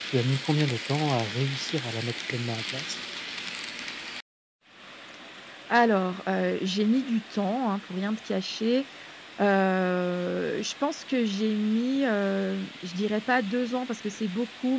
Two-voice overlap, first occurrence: none

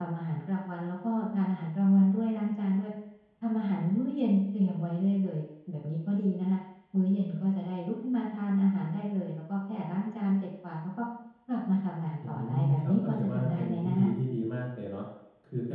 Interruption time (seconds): 12 s

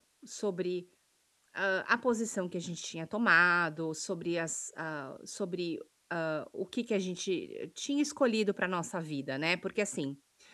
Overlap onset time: none

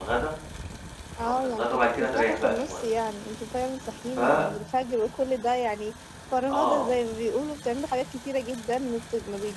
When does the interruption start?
1 s

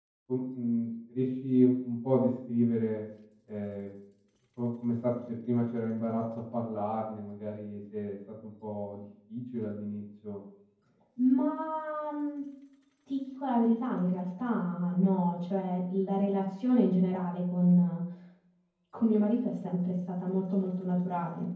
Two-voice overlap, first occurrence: none

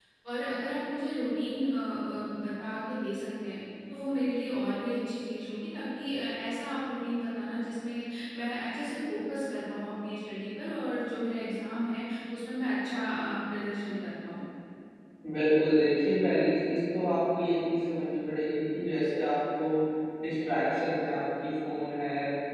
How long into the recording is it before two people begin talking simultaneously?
none

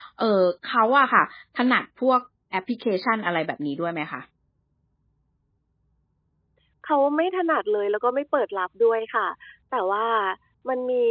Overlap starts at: none

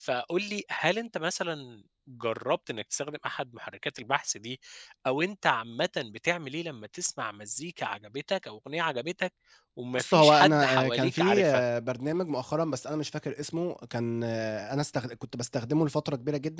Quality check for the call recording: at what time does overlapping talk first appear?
10 s

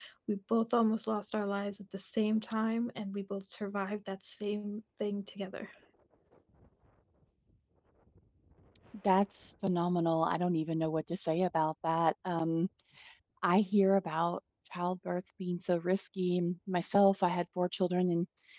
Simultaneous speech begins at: none

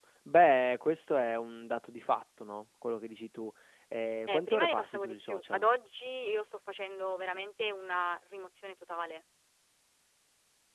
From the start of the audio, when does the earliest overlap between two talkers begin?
4 s

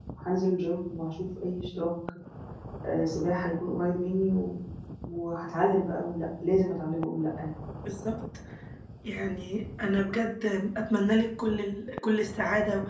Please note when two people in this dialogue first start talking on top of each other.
none

